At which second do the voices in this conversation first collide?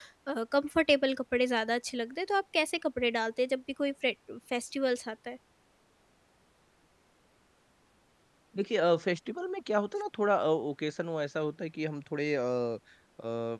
none

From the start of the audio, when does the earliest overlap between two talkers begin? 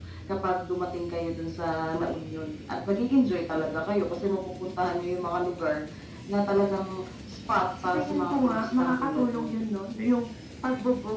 7.8 s

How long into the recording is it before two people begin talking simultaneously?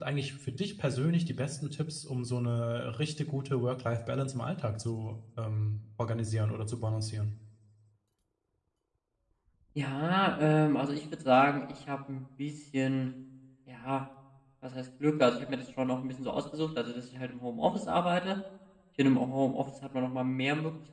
none

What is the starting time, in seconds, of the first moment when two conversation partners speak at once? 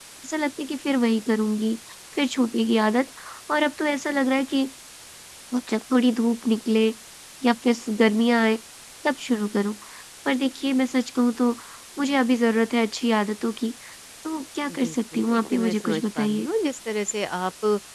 14.7 s

